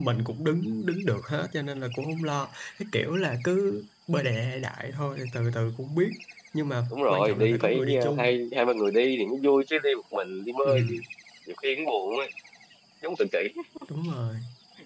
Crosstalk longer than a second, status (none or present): present